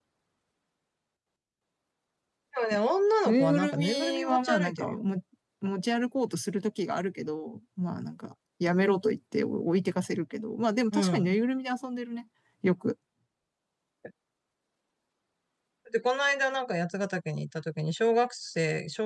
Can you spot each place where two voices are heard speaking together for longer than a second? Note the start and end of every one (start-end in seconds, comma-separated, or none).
3.2-5.0